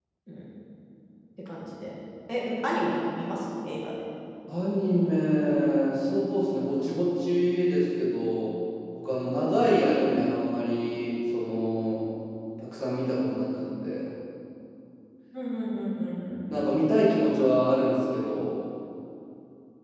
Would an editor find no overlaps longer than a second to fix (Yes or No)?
Yes